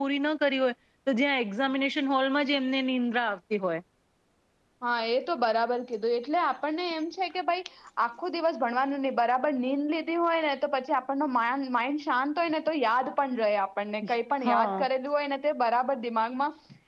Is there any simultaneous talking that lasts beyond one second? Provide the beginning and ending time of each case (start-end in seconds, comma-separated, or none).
none